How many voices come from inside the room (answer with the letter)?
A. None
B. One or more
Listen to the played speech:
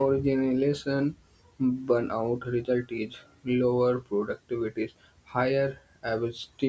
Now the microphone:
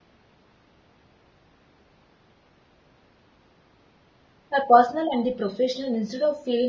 B